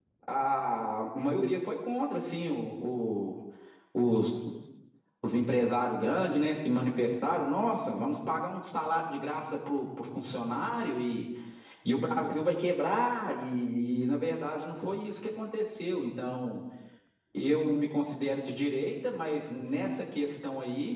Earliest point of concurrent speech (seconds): none

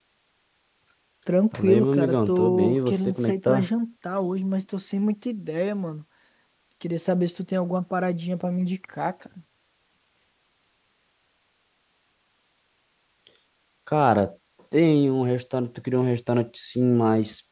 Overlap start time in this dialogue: 1.5 s

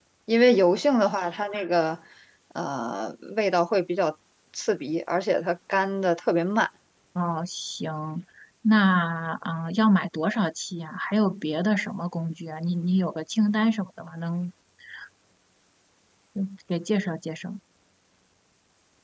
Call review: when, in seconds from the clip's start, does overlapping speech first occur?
none

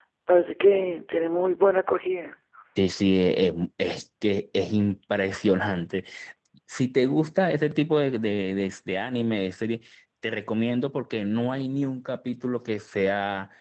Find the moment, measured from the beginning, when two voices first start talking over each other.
none

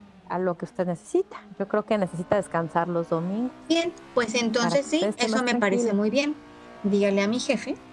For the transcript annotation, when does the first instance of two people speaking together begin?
4.6 s

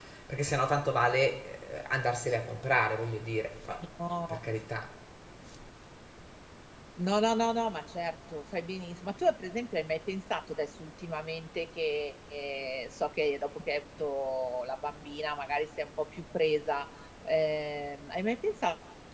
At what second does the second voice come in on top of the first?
none

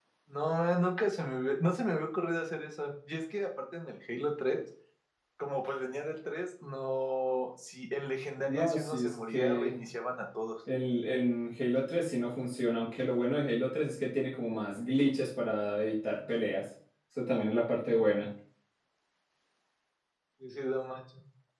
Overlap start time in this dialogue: 8.4 s

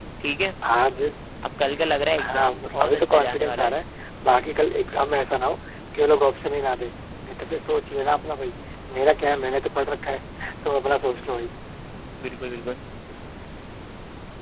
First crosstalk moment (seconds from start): 2.2 s

